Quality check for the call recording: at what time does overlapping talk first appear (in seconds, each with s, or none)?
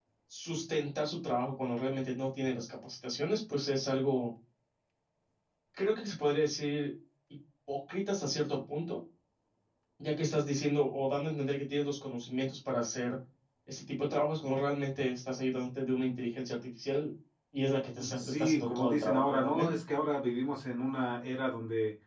18.2 s